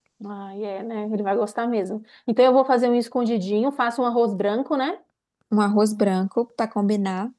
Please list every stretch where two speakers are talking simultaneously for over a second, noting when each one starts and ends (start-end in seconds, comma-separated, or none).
none